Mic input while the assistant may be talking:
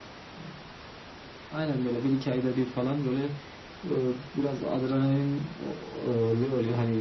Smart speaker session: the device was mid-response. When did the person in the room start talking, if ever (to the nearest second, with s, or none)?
none